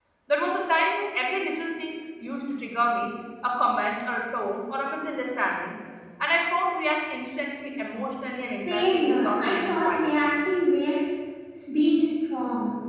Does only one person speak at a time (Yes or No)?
No